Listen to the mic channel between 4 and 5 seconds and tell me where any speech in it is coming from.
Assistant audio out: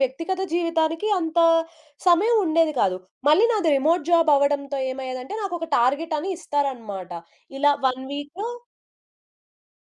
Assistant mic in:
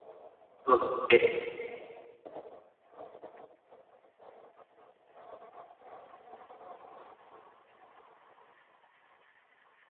neither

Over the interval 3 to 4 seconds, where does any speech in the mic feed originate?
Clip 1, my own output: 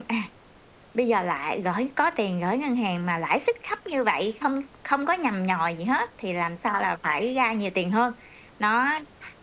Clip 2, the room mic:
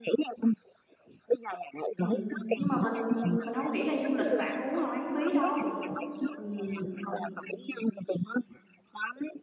both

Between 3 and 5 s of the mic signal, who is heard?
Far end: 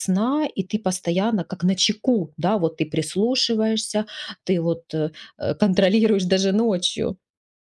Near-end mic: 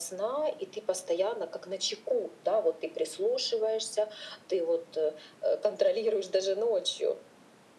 echo only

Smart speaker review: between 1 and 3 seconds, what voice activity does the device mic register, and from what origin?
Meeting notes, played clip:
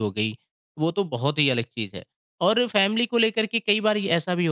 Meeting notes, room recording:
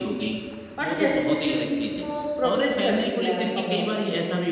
both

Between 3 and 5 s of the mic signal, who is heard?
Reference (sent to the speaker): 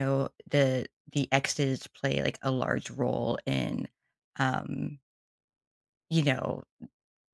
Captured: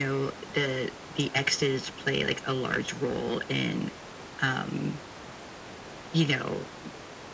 echo only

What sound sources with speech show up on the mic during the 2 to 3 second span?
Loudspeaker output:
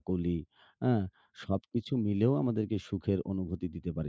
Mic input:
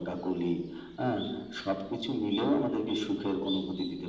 echo only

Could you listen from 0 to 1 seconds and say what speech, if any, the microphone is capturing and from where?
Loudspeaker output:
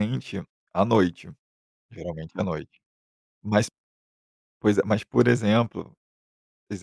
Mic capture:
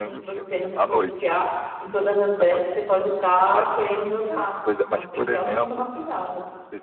both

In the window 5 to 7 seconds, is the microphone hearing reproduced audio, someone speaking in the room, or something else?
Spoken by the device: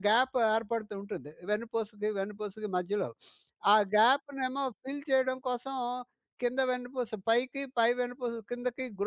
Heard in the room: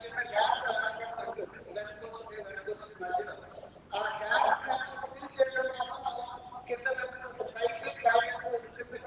echo only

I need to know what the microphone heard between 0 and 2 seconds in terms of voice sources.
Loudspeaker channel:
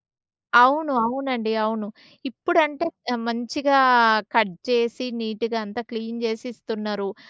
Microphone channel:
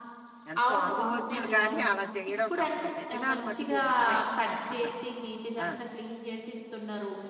both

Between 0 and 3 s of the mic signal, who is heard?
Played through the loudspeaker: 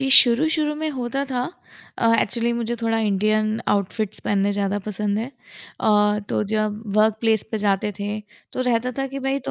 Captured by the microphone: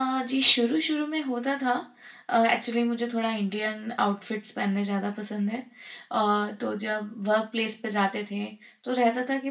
echo only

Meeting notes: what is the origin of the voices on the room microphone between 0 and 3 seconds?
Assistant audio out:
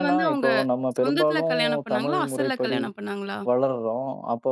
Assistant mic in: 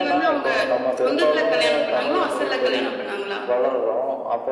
echo only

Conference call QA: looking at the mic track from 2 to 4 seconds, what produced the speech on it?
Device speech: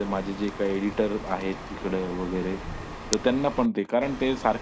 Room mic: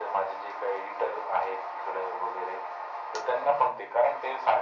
echo only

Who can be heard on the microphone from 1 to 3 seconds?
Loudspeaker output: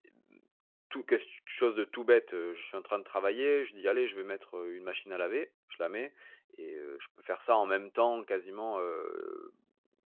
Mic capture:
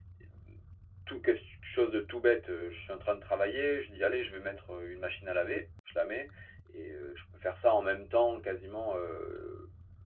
echo only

